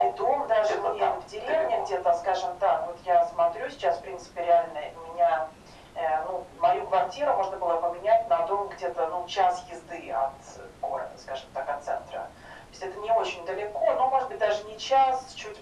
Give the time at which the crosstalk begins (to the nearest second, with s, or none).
1 s